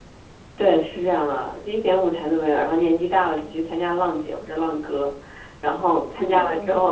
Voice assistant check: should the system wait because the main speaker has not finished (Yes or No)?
Yes